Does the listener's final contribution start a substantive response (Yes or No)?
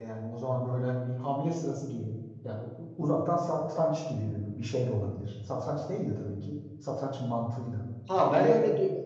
Yes